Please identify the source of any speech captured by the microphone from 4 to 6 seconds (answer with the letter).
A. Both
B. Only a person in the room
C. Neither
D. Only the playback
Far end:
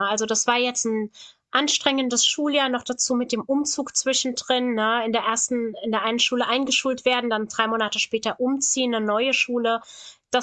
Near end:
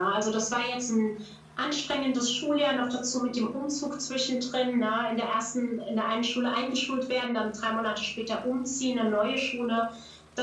D